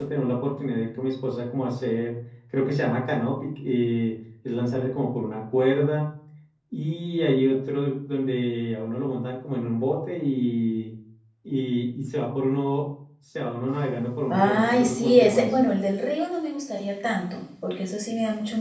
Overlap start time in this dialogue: 14.3 s

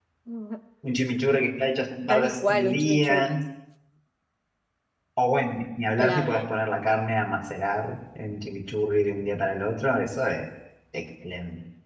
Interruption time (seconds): 2.1 s

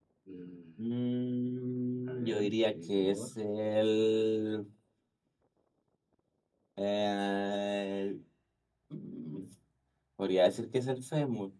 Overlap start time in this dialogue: 2.1 s

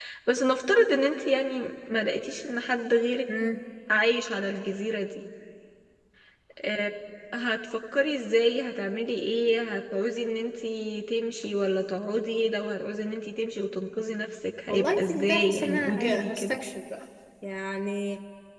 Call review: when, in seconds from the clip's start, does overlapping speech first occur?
14.7 s

